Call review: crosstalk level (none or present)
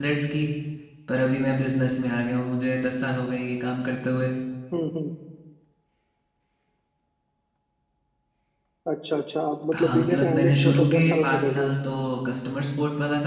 present